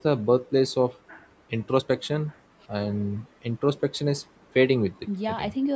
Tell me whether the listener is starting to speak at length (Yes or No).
Yes